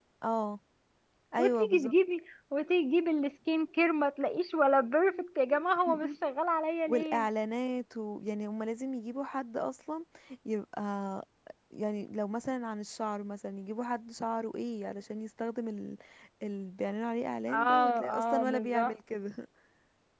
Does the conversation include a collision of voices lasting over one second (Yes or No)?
Yes